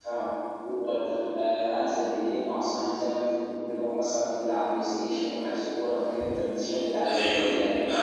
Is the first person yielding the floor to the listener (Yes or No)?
Yes